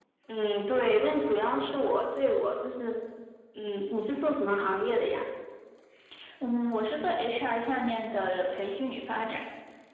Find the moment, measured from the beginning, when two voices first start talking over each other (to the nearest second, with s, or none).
none